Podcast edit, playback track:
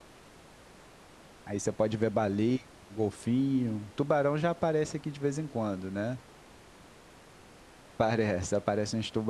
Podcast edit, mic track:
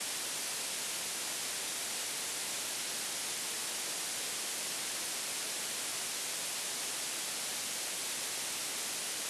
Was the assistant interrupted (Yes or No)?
No